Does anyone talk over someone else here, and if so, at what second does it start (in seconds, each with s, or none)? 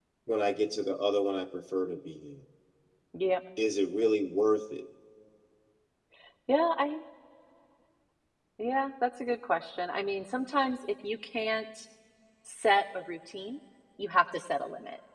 none